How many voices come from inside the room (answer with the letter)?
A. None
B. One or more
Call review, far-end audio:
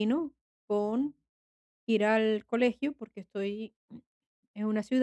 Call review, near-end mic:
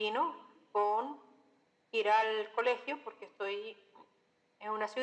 A